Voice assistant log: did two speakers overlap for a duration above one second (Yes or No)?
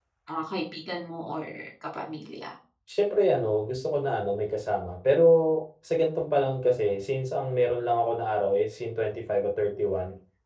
No